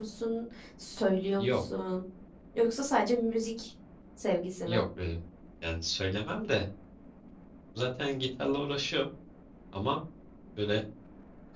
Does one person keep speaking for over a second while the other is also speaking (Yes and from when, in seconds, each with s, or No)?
No